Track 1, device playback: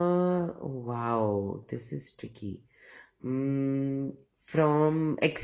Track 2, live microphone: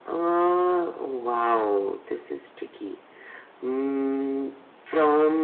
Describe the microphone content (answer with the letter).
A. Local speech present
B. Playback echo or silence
B